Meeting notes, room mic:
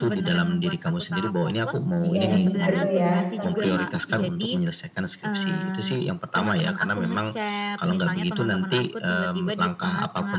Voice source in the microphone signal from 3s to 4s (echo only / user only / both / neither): both